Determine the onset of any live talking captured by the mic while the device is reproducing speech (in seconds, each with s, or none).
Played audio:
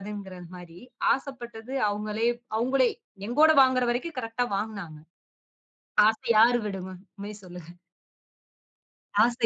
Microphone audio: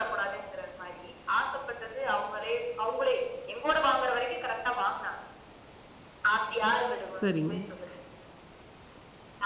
7.2 s